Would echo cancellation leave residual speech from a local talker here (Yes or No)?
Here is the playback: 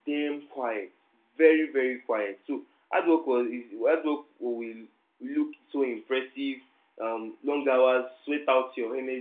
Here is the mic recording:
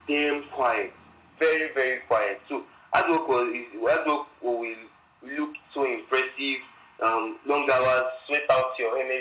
No